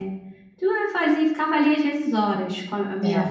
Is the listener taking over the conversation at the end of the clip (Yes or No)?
No